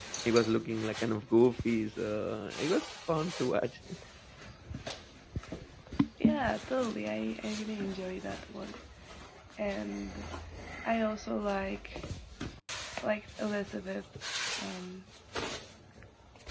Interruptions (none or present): none